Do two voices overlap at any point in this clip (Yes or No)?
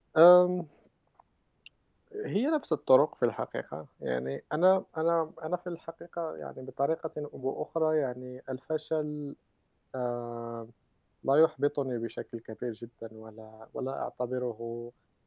No